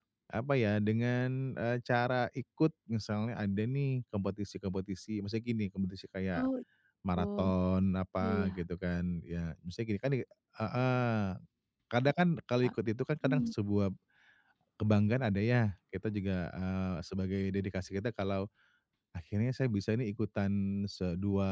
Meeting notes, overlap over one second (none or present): none